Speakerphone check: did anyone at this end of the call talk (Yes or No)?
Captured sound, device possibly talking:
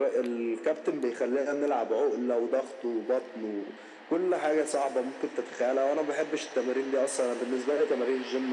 No